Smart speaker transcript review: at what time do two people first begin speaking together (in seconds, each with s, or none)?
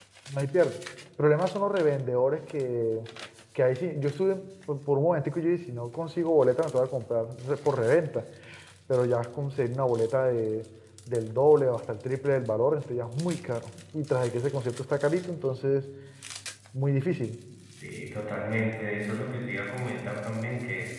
none